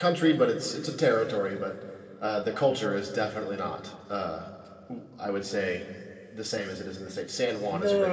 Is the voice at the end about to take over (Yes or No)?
Yes